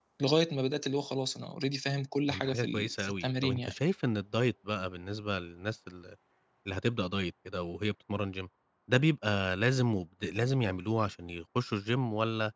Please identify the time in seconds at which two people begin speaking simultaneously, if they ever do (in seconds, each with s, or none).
2.3 s